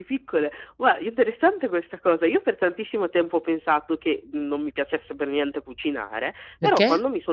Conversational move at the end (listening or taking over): listening